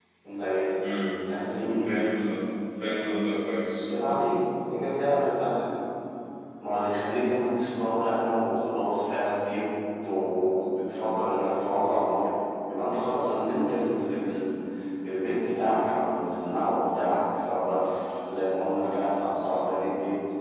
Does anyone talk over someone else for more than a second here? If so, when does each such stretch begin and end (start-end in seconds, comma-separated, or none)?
none